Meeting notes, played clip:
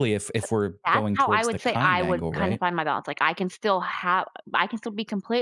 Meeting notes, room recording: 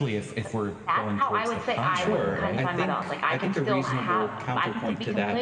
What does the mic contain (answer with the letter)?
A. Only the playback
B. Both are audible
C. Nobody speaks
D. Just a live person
B